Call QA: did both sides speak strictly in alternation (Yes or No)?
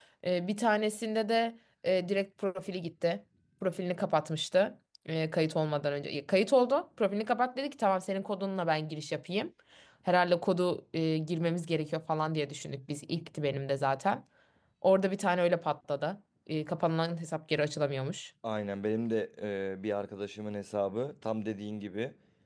Yes